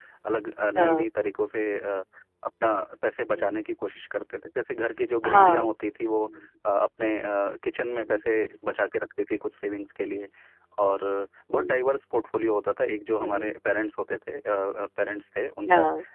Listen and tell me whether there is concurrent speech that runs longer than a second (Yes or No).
No